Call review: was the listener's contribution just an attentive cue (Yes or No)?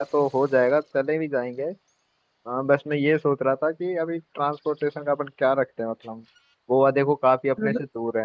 Yes